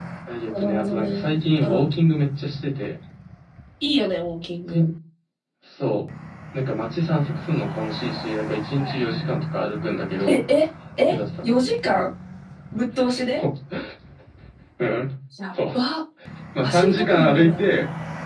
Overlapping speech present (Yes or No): Yes